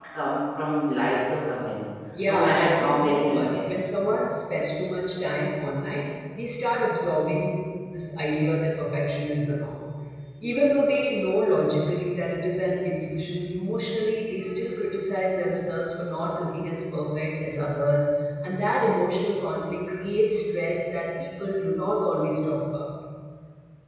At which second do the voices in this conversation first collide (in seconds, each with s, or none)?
2.1 s